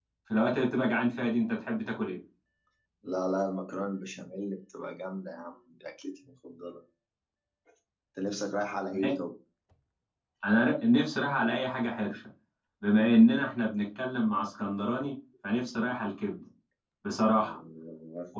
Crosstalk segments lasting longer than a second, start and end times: none

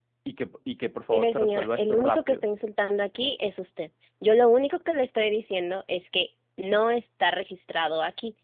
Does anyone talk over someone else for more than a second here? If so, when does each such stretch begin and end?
1.1-2.5

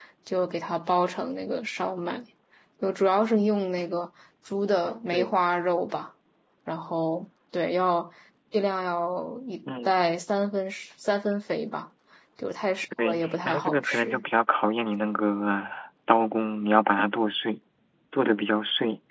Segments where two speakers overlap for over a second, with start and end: 13.0-14.2

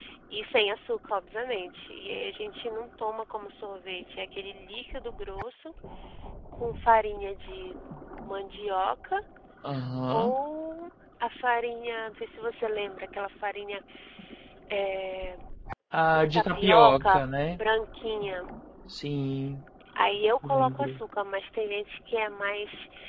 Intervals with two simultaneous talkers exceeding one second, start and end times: 16.2-17.6

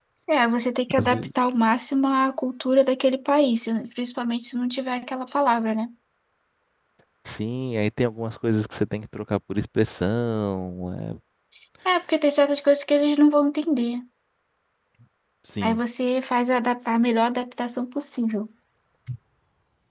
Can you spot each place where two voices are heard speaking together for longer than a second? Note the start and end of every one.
none

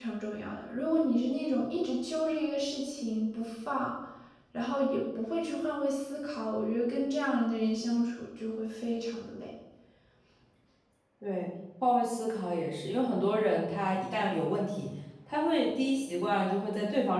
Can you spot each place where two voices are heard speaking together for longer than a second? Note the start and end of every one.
none

